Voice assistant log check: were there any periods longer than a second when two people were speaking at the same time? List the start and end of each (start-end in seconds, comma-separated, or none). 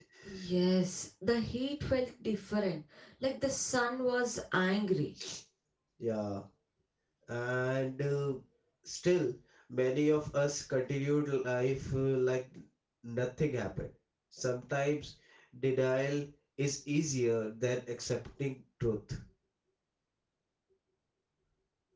none